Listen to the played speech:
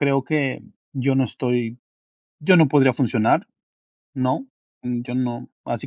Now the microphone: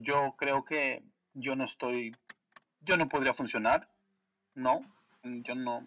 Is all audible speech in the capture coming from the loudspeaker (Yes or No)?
Yes